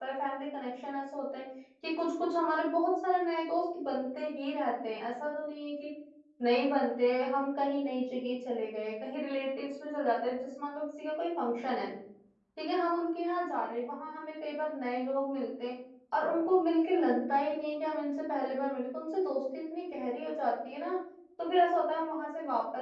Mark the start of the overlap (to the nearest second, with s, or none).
none